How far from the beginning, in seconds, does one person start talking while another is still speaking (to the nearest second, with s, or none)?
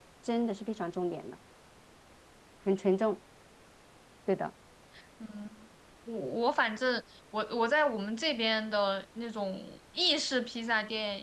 none